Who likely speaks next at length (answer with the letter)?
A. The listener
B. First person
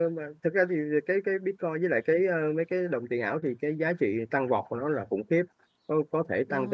B